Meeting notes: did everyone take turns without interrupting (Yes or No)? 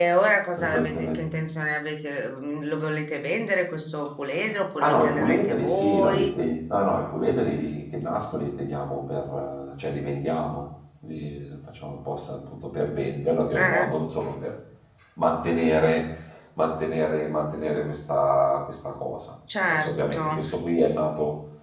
No